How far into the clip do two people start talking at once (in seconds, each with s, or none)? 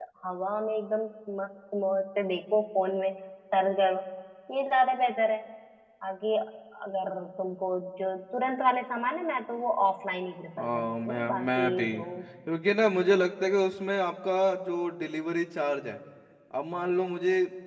10.6 s